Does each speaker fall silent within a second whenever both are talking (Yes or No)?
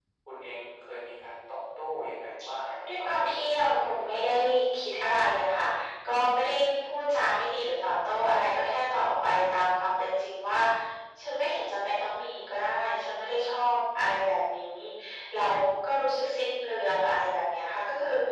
No